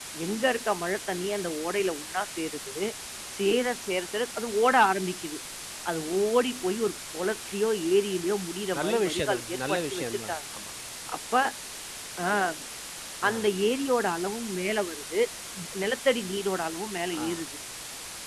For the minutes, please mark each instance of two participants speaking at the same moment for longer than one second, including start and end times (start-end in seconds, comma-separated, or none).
8.8-10.3